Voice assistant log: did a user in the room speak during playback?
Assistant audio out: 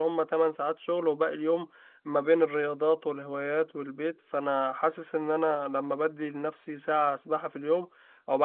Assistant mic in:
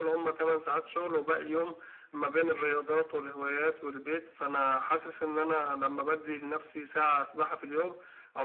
No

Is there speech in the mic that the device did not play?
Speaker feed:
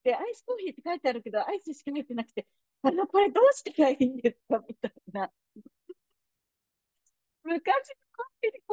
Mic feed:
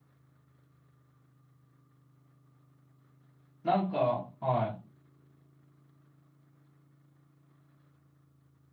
Yes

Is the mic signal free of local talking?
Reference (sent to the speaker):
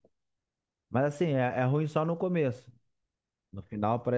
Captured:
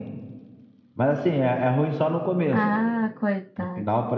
No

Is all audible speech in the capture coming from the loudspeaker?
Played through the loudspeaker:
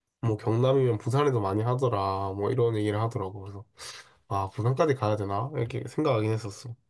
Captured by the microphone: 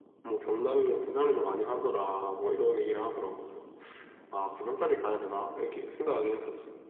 Yes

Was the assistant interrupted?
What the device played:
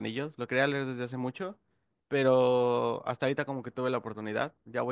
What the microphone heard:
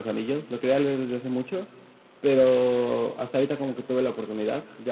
No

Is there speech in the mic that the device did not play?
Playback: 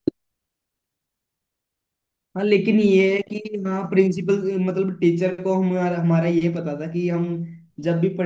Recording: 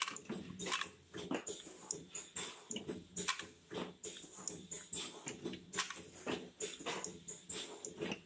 No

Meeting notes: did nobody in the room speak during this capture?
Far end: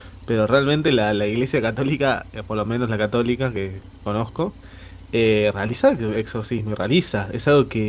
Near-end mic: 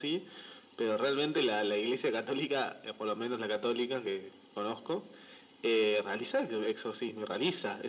Yes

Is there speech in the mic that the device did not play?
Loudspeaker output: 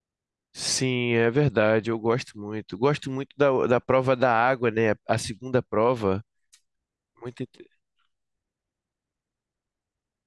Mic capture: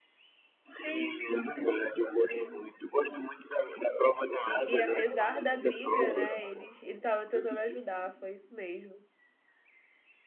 Yes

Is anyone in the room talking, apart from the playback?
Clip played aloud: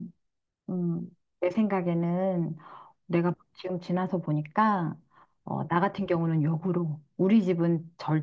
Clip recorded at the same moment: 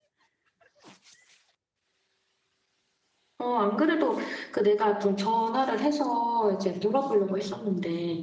Yes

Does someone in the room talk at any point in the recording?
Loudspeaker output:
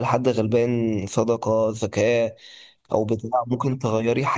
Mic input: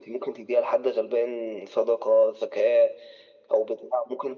No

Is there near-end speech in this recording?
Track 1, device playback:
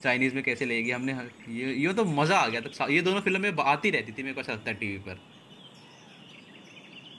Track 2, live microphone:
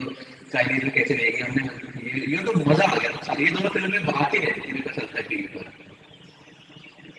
No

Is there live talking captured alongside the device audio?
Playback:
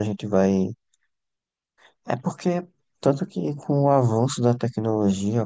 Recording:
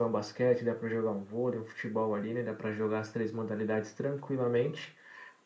Yes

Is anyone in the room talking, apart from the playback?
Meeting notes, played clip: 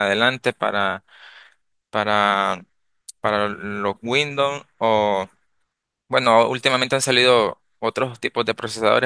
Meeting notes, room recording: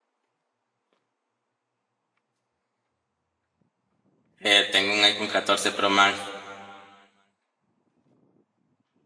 Yes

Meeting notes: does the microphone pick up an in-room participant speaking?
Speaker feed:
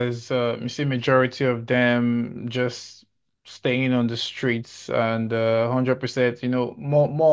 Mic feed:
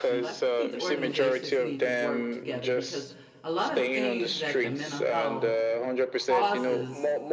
Yes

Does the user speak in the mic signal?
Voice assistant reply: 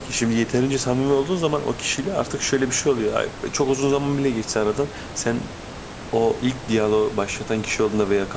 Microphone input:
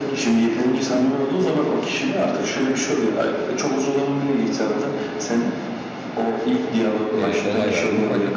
Yes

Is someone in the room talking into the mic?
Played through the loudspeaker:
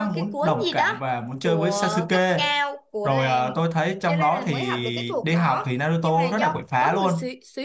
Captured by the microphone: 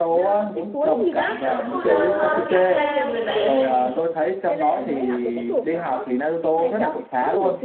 Yes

